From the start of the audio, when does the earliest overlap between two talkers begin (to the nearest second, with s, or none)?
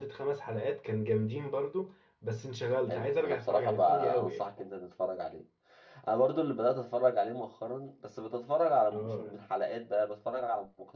3 s